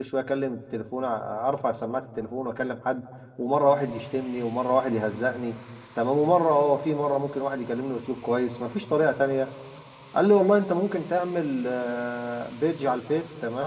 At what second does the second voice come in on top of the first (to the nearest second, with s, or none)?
none